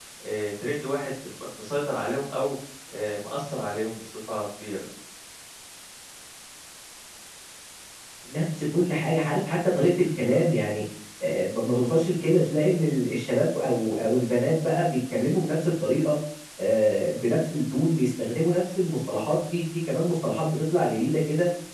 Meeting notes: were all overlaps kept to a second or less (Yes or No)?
Yes